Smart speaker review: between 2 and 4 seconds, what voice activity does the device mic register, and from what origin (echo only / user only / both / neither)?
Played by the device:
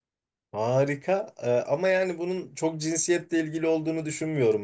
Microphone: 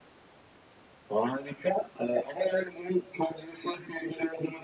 echo only